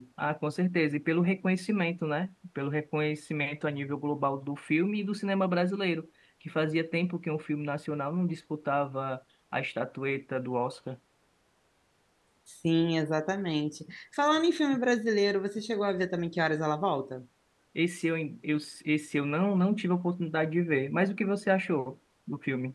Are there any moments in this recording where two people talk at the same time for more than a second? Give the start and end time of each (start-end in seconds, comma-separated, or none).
none